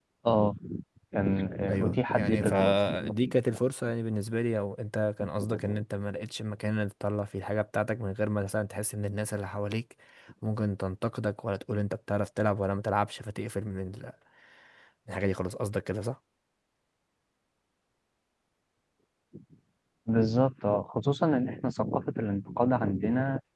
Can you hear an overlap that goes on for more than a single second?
Yes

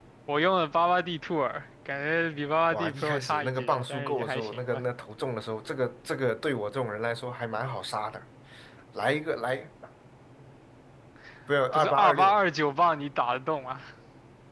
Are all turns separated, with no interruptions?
No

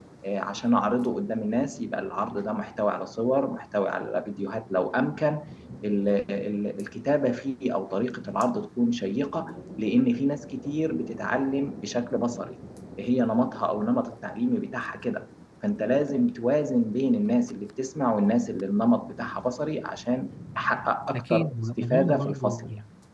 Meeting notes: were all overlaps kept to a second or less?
No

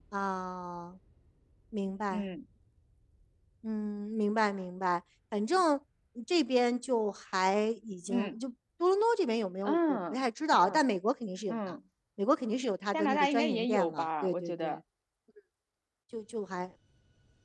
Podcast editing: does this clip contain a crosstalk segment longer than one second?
Yes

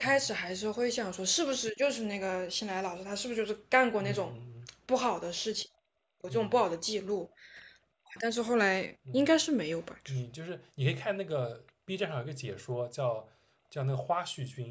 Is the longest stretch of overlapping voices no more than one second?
Yes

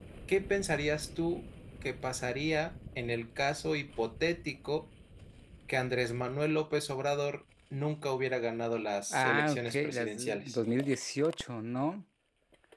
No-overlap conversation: No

